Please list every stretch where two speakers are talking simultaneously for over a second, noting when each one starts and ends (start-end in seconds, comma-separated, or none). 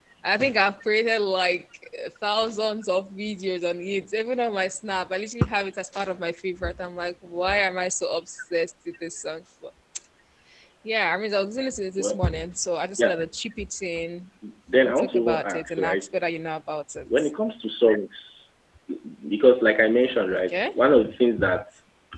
14.8-16.0